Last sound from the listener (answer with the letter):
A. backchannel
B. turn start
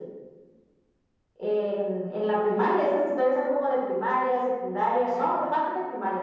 A